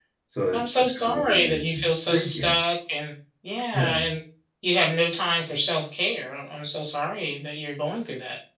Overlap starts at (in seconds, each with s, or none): 0.5 s